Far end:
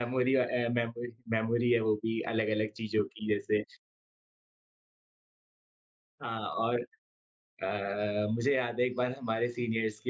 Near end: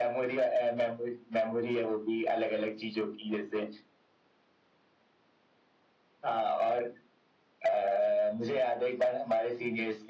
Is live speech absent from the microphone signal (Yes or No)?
Yes